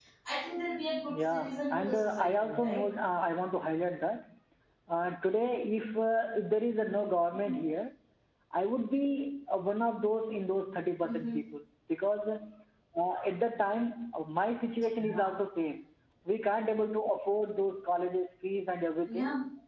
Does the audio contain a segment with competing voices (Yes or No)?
Yes